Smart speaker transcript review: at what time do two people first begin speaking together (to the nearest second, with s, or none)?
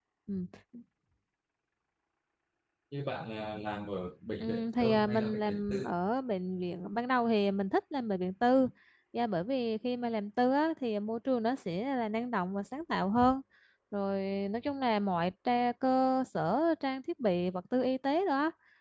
4 s